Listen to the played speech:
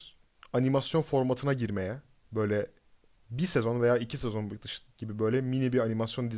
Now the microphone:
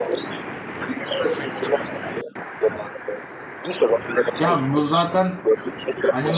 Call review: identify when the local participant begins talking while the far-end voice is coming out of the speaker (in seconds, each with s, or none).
4.4 s